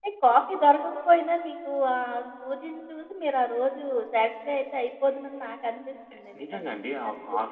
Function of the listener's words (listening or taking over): taking over